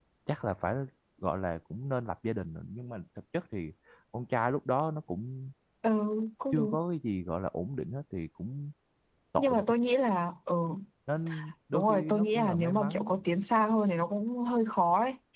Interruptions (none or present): present